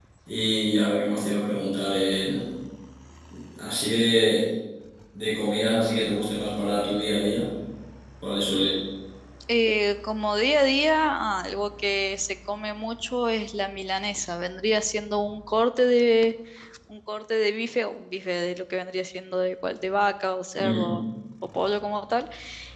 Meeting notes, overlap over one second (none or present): none